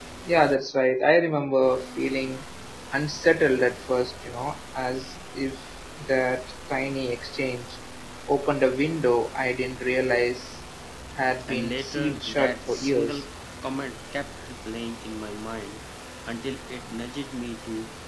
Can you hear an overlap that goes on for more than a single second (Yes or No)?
Yes